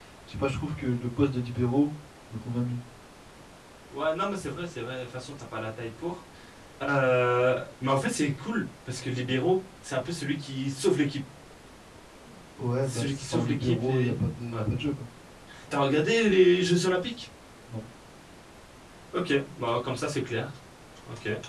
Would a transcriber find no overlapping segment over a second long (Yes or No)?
No